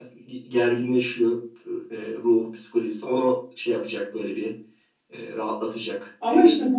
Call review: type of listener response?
taking over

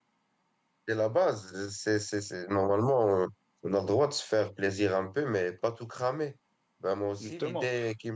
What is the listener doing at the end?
listening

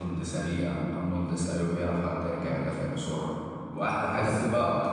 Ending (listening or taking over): listening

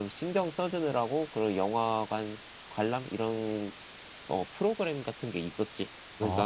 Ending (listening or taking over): taking over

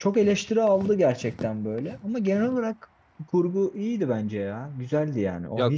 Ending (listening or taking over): taking over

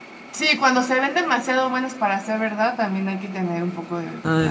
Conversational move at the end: taking over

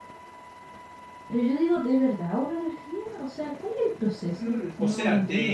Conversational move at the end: taking over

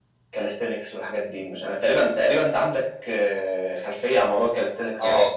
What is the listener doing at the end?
taking over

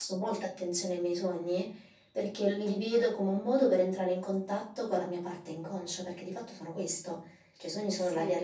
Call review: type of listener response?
listening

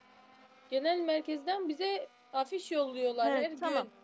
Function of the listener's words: taking over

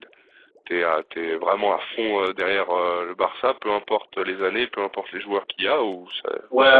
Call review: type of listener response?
taking over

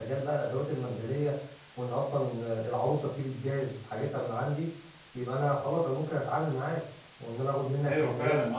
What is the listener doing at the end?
taking over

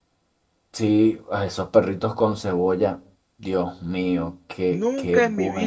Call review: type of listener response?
taking over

